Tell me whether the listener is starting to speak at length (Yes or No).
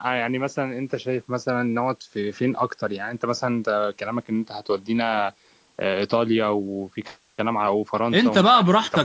Yes